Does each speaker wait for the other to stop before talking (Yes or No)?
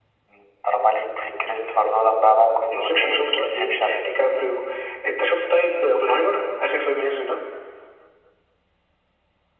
No